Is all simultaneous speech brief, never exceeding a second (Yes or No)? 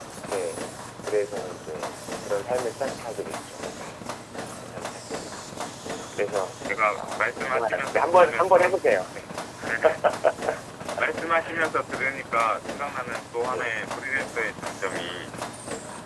No